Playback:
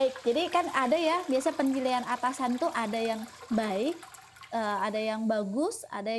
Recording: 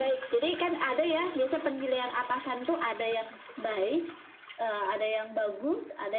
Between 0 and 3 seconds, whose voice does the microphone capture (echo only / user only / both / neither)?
echo only